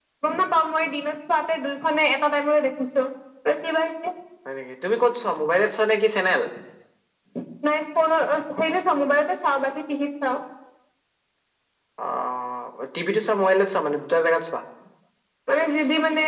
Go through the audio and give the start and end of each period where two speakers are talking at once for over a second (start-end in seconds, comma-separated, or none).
none